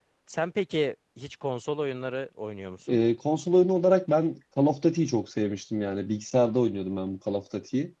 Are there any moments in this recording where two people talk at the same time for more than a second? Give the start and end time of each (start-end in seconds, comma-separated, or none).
none